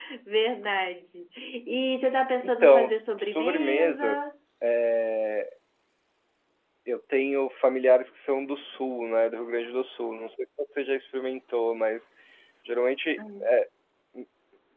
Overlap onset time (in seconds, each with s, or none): 2.4 s